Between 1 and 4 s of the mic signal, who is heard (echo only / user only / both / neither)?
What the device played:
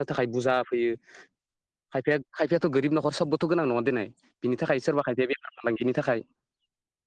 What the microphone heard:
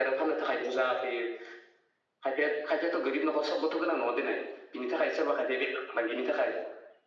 echo only